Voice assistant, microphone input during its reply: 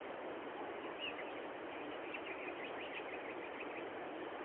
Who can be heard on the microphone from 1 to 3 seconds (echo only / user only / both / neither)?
neither